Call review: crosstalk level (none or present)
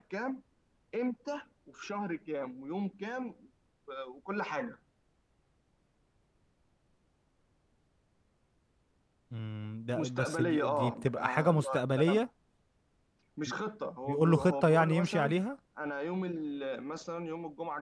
present